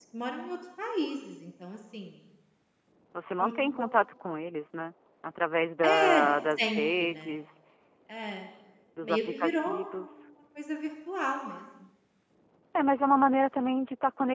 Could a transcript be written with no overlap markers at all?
No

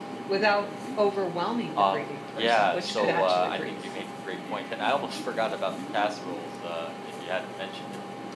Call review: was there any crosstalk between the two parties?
Yes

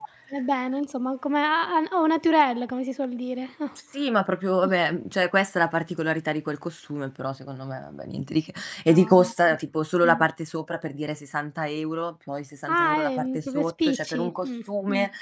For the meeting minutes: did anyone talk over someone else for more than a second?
Yes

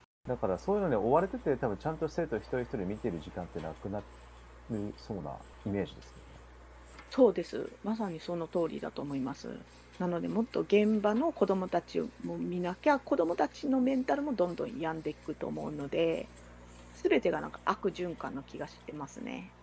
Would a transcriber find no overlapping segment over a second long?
Yes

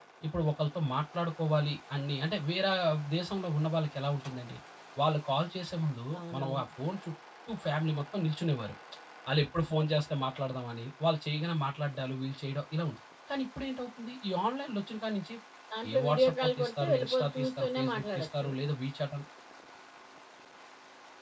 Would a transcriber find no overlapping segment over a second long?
No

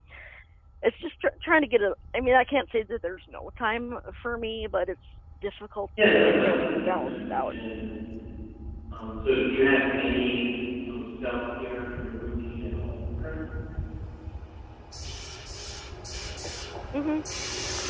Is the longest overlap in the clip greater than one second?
Yes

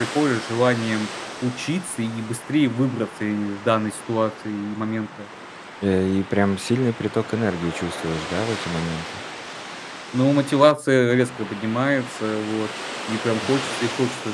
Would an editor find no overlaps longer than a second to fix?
Yes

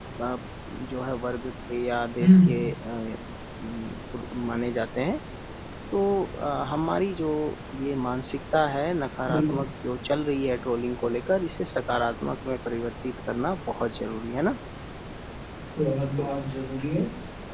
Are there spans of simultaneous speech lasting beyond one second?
No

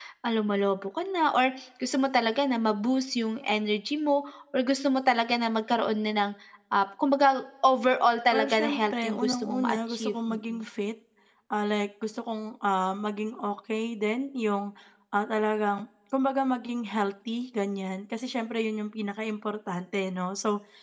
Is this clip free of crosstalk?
No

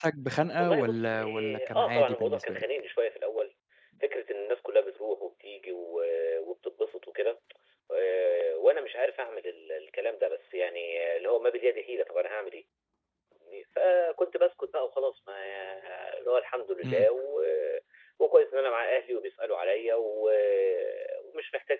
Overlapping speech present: Yes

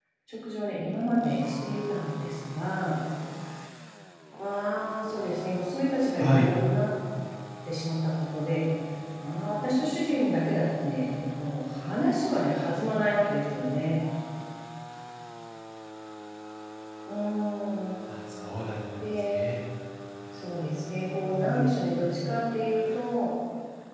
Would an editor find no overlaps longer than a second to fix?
Yes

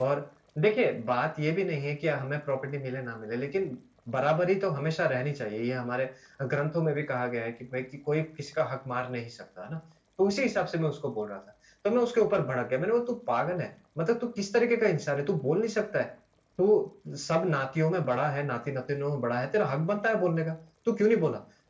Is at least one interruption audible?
No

